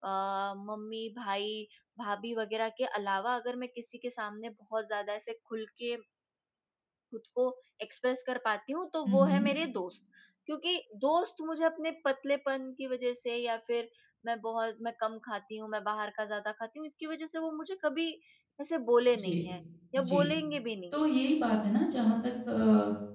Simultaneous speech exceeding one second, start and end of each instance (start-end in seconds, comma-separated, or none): none